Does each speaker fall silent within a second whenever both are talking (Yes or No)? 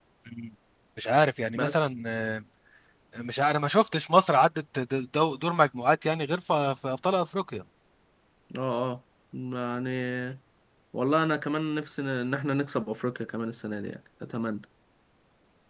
Yes